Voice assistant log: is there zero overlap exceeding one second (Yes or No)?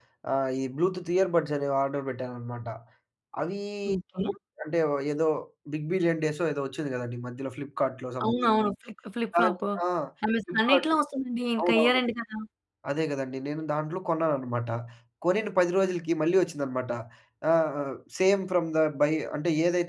Yes